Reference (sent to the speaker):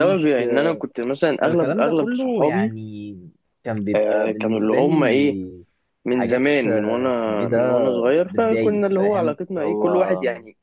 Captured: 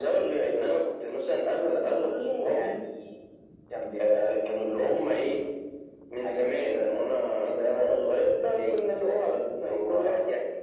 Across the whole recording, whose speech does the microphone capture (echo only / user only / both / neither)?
echo only